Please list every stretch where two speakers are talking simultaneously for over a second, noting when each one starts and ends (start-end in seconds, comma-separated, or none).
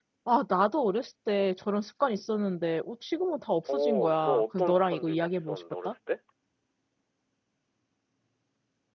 3.7-5.9